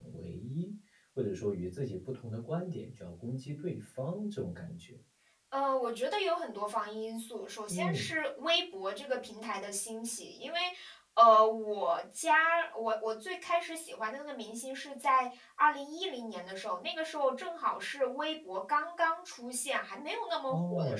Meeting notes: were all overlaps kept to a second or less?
Yes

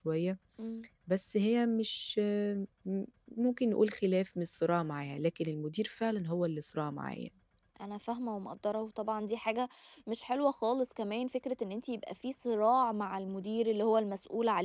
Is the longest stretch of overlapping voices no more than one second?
Yes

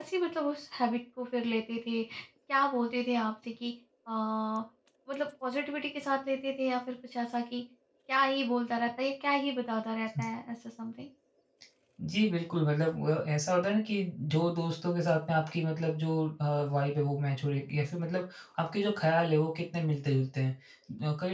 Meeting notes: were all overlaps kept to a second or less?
Yes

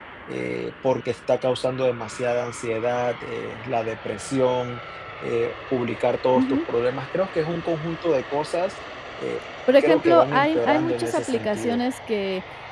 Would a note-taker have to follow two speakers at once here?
Yes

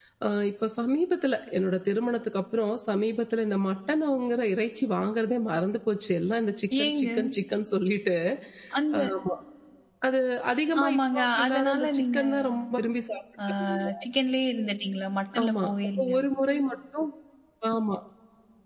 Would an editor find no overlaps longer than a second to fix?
No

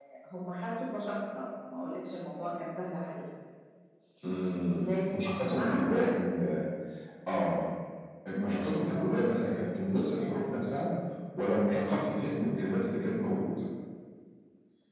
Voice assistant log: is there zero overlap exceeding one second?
No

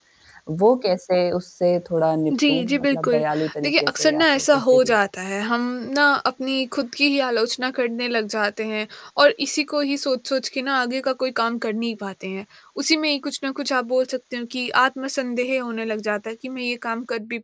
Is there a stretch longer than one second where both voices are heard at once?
Yes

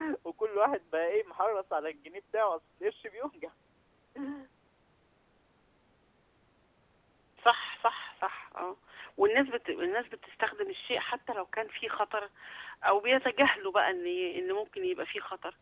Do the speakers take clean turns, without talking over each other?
Yes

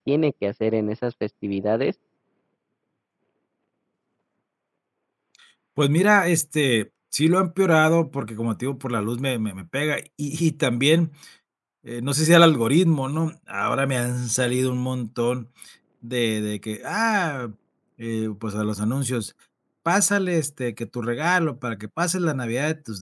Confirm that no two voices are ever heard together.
Yes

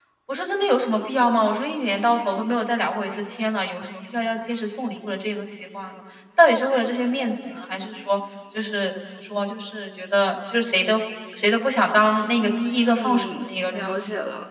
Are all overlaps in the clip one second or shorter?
No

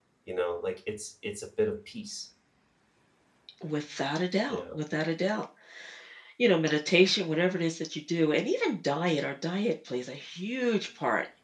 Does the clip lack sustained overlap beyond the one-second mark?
Yes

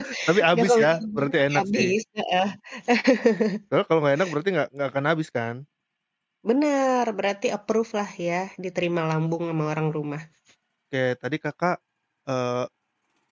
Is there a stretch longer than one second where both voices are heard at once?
Yes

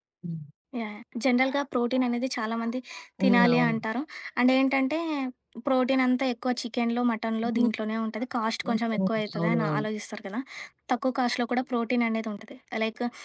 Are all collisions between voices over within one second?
No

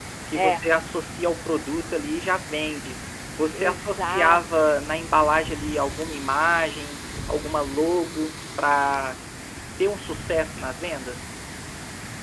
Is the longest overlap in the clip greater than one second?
Yes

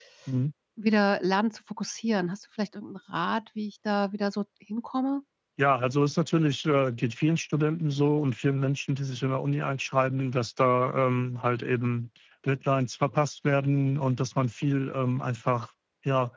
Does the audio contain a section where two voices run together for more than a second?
No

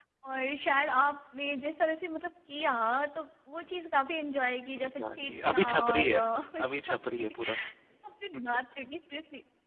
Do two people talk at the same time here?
Yes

